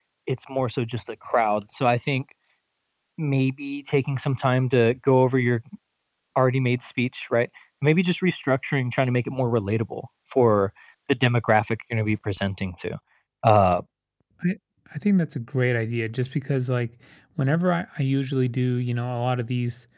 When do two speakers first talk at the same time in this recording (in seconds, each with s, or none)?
none